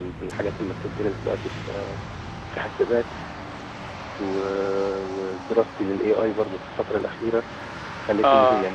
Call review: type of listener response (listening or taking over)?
taking over